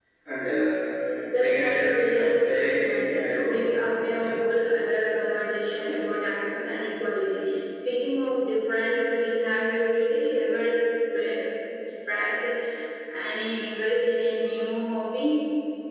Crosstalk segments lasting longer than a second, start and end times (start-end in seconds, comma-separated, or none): 1.3-3.6